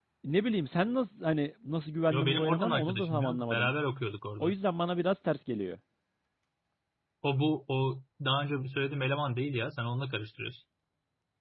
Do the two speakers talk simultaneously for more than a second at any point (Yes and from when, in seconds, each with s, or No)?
Yes, from 2.1 s